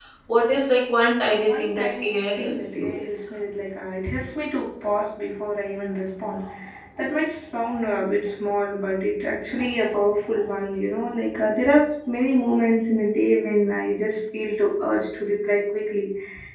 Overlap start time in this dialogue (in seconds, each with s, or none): 1.2 s